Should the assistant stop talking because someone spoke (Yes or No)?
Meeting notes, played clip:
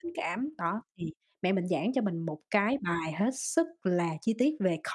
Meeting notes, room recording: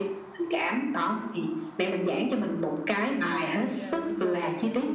Yes